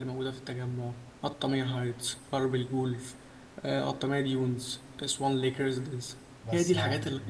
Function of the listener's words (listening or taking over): taking over